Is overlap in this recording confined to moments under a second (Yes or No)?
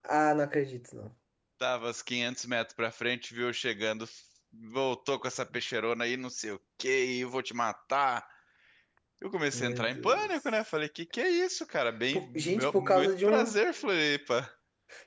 No